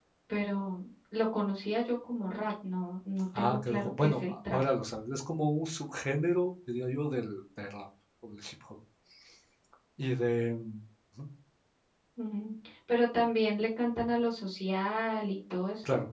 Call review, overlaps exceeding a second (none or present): present